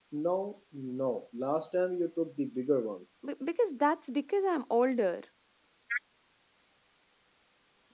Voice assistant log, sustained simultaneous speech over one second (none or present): none